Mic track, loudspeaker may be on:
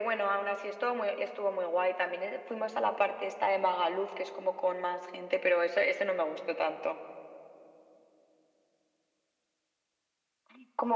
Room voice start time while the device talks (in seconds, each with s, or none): none